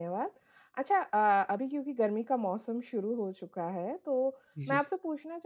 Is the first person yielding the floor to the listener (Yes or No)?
No